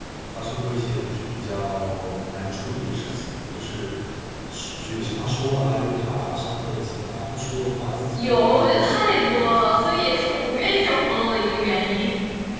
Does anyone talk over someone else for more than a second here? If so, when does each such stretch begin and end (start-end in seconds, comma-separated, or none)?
8.1-10.0